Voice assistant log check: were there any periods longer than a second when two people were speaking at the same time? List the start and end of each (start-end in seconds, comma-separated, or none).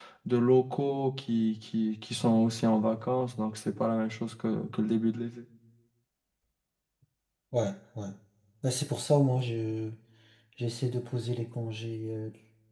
none